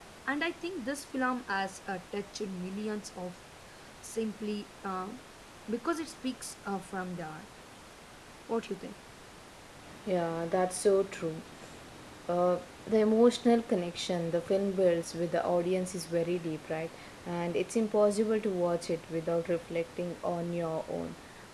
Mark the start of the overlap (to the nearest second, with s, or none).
none